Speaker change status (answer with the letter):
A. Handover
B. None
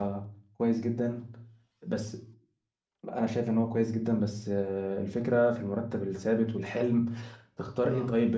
B